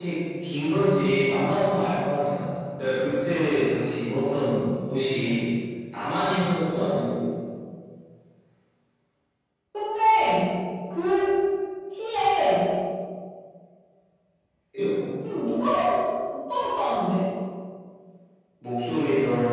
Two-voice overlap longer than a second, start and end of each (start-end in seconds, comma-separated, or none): none